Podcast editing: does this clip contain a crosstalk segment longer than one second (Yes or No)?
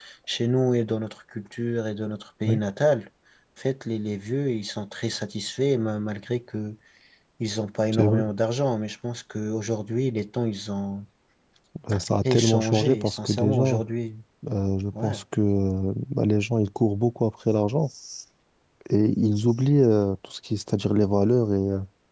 Yes